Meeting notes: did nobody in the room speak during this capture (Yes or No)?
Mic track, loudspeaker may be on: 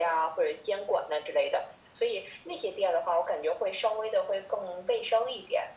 Yes